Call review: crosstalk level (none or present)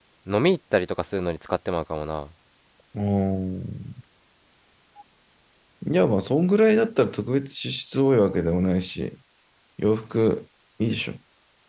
none